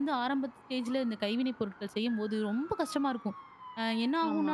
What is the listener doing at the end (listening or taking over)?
listening